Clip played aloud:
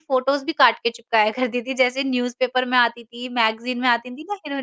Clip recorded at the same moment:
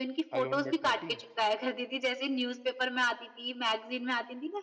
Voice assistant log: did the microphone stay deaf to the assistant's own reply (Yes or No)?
No